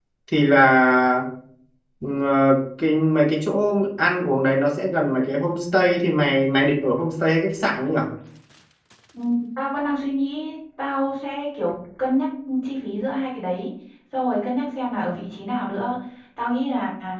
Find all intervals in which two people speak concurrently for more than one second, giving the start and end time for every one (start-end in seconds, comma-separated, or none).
none